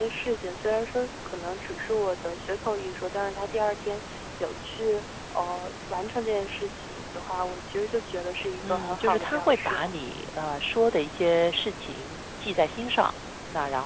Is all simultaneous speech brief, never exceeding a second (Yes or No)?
No